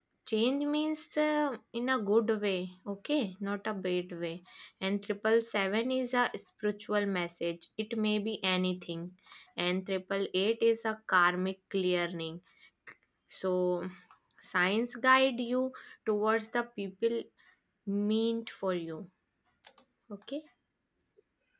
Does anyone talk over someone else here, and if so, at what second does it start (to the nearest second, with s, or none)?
none